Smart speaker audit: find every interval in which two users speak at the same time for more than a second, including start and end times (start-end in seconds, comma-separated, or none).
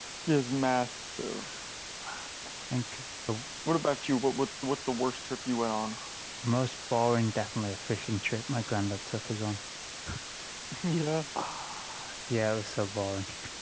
none